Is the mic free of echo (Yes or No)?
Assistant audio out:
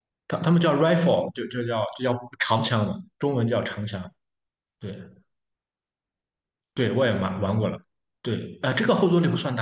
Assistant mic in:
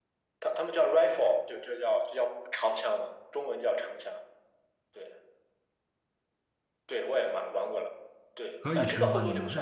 No